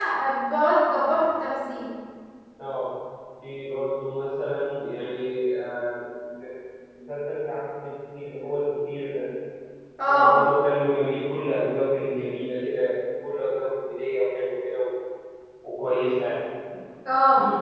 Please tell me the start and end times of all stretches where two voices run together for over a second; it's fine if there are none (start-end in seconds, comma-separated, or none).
none